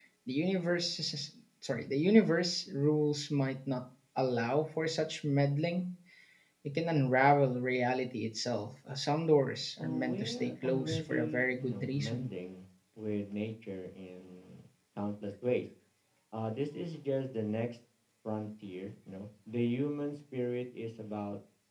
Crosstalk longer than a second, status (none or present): present